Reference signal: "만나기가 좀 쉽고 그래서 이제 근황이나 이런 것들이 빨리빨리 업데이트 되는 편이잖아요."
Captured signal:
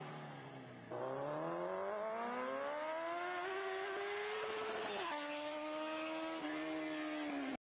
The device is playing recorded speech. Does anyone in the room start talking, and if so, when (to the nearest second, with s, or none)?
none